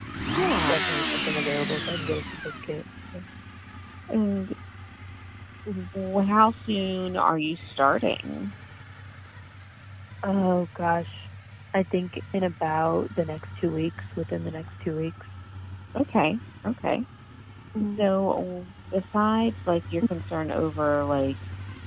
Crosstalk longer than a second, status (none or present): none